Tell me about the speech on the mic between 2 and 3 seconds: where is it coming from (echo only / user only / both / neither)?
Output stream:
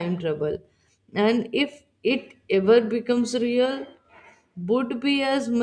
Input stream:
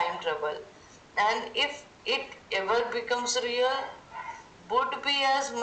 echo only